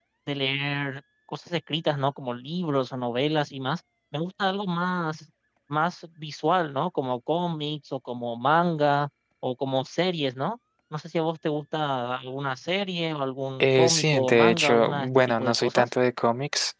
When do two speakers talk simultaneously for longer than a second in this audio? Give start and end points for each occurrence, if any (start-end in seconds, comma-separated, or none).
13.6-15.9